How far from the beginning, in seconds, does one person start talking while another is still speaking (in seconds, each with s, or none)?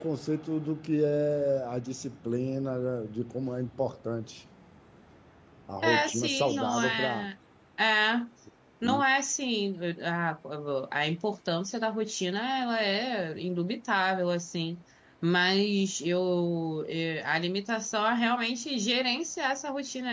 5.8 s